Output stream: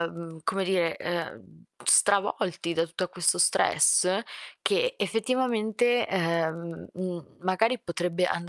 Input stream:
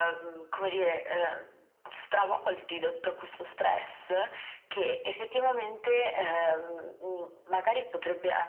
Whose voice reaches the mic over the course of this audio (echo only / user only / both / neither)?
echo only